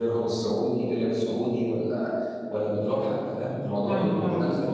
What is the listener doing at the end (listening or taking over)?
taking over